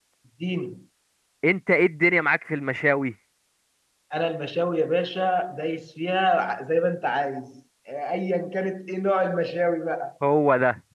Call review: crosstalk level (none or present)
none